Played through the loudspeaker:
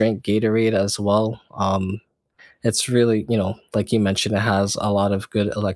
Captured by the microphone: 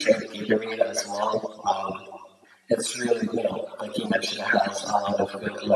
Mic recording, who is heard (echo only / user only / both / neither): echo only